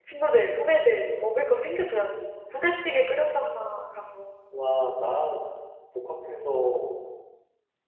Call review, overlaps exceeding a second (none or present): none